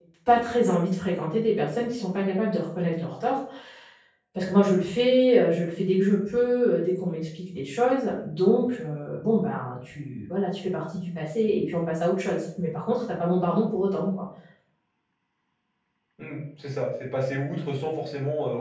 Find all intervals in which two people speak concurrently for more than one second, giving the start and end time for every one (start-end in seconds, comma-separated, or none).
none